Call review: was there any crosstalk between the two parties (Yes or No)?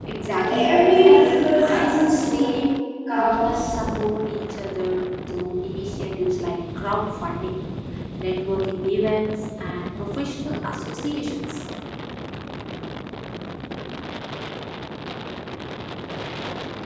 Yes